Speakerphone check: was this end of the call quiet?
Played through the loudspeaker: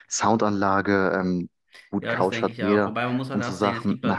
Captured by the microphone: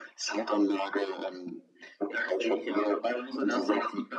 Yes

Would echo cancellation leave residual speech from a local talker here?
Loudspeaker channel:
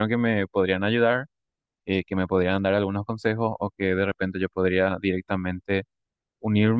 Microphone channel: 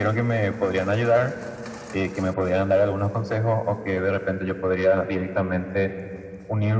No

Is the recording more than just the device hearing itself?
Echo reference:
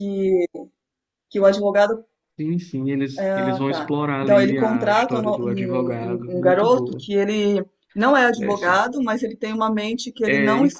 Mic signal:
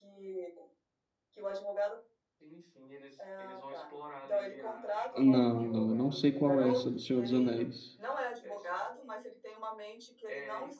Yes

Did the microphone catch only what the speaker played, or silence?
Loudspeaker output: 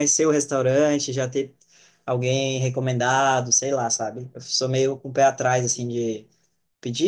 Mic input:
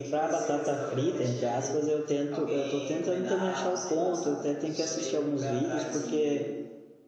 No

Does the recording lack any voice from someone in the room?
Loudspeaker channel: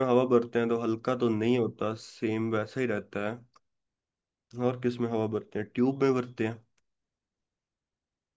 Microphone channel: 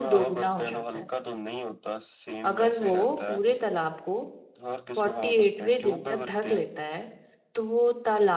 No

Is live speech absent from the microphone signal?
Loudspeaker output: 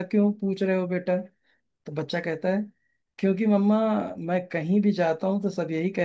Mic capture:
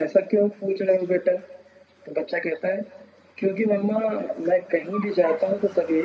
Yes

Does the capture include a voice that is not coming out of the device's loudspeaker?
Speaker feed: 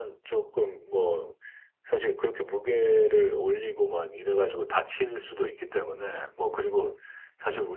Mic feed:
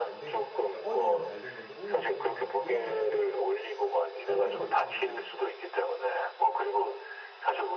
Yes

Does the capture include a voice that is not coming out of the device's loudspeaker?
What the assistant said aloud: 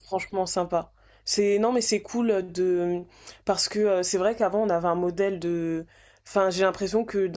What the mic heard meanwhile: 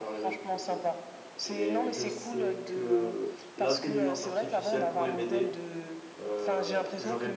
Yes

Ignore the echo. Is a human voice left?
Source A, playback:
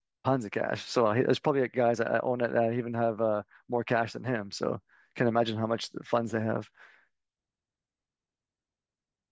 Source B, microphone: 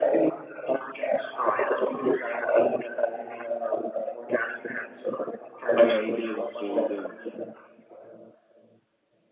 Yes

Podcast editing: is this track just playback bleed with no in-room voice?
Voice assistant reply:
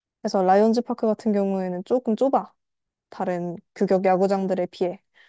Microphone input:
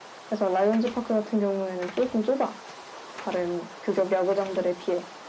Yes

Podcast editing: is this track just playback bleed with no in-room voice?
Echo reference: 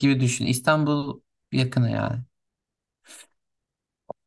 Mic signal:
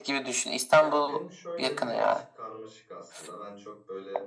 No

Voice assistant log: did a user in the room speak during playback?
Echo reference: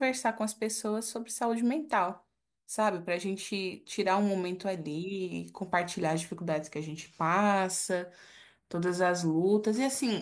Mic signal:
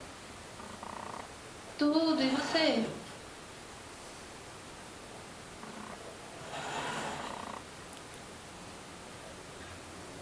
Yes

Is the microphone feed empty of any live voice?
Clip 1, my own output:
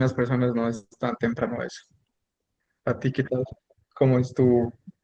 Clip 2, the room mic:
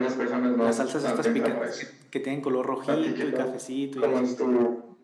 No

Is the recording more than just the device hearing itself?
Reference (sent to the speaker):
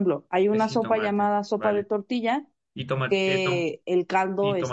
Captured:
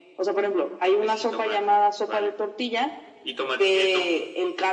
No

